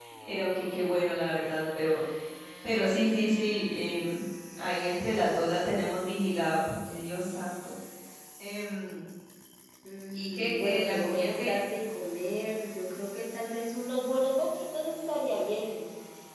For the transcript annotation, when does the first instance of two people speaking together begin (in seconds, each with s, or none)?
10.1 s